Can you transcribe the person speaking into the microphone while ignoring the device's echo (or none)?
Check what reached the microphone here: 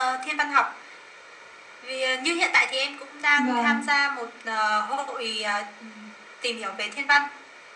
vâng.